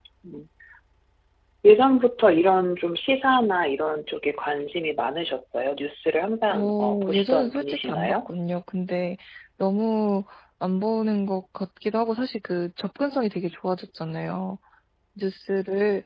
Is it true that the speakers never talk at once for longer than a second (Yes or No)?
No